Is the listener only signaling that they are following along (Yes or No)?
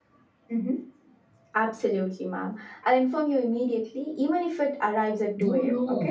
No